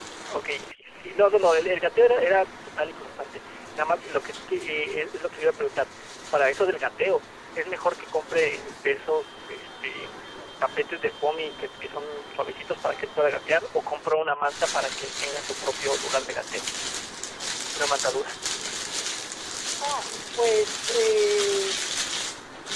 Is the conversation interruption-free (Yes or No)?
Yes